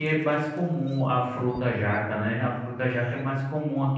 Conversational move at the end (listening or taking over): listening